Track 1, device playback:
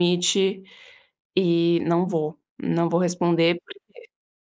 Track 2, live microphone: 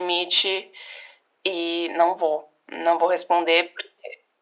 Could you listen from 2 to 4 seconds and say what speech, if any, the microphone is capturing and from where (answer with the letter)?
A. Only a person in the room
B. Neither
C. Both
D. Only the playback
D